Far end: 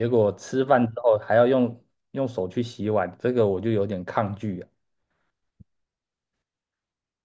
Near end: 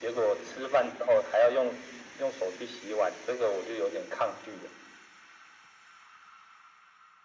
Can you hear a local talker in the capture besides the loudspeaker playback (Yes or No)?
No